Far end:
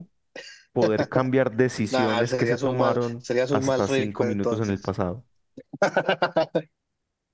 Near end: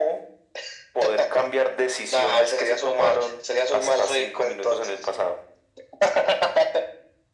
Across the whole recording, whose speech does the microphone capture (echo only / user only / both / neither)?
echo only